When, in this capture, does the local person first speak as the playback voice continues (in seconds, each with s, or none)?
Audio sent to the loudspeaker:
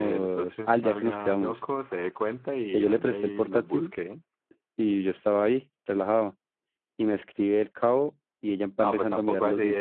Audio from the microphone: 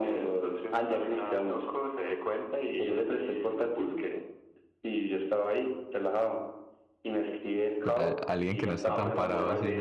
7.8 s